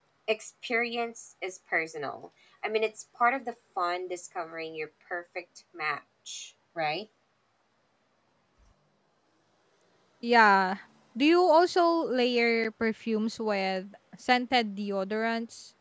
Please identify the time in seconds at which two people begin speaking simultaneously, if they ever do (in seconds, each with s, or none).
none